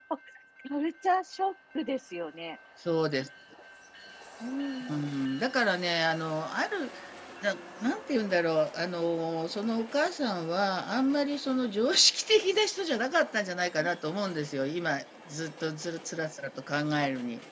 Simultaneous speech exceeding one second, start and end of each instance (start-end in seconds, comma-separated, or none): none